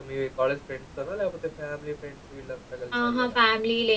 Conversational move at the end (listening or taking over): taking over